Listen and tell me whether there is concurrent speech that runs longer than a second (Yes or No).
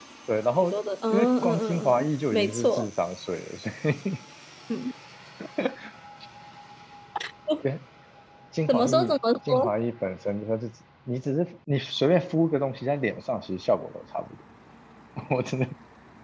Yes